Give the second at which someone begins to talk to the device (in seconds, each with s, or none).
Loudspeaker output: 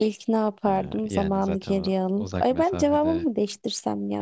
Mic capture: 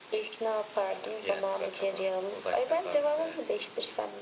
none